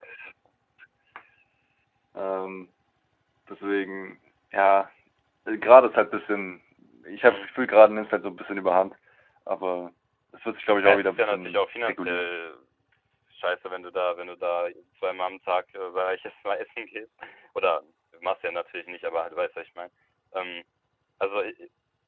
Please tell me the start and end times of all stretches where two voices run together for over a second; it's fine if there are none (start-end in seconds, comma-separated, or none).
10.8-12.3